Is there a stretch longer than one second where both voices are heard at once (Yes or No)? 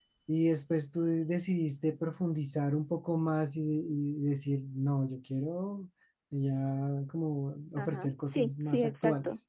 Yes